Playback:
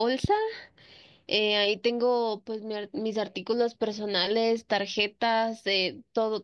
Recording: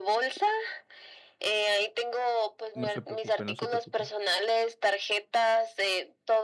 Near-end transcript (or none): No se preocupe, no se preocupe.